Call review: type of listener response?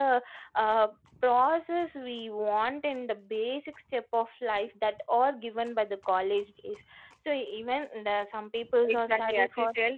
taking over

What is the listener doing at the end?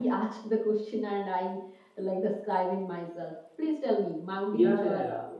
taking over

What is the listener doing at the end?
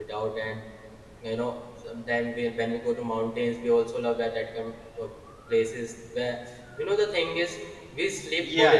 taking over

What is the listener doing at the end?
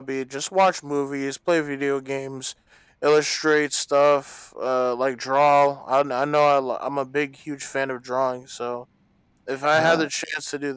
listening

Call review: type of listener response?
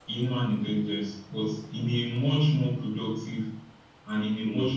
listening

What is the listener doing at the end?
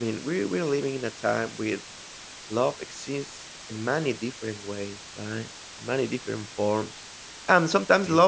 listening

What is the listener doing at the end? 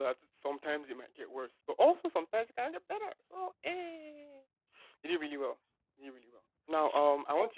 listening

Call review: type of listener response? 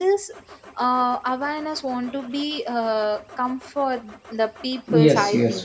taking over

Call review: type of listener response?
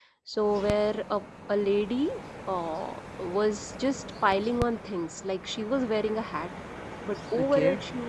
listening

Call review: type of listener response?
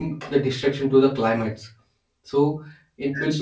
listening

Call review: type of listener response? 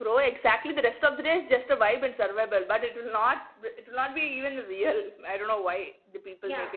taking over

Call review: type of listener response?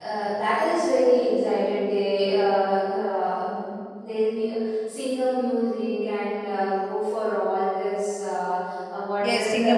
taking over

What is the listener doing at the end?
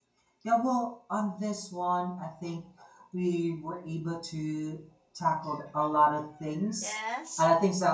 listening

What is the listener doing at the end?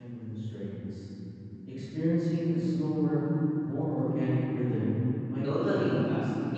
taking over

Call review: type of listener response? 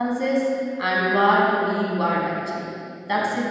listening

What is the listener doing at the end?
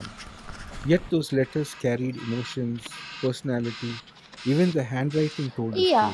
taking over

